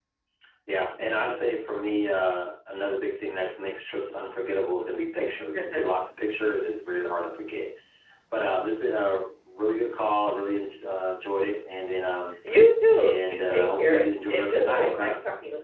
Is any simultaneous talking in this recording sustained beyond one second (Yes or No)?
Yes